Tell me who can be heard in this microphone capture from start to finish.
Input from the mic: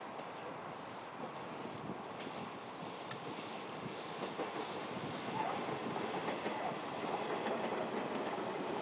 neither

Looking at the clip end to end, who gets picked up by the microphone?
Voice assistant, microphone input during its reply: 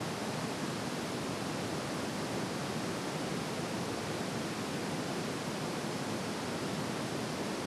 neither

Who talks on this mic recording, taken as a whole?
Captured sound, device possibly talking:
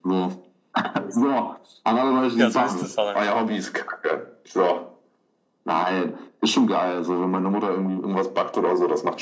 both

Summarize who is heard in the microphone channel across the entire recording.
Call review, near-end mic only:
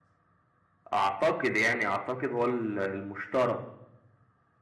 user only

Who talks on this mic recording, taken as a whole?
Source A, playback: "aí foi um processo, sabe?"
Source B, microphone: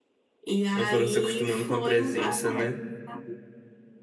both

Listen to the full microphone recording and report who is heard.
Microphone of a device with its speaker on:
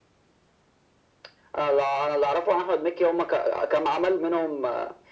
echo only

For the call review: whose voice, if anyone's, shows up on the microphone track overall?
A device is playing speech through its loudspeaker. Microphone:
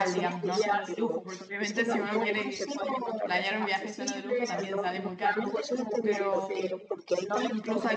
both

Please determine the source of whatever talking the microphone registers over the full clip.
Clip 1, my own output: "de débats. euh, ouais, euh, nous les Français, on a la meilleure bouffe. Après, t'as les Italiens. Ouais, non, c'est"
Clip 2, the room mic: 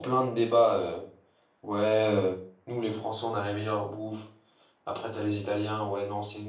echo only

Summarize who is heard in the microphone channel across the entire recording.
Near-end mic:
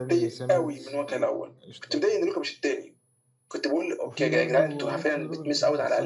both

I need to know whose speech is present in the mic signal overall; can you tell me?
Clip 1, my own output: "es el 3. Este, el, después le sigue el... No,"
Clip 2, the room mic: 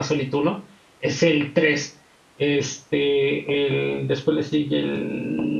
echo only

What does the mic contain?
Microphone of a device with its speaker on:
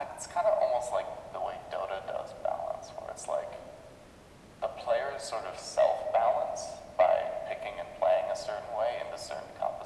echo only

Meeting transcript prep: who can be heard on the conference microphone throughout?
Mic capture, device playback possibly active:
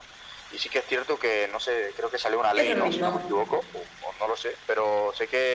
both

